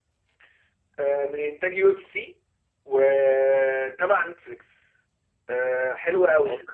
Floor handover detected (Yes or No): No